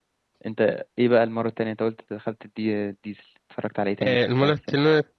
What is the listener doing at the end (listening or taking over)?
taking over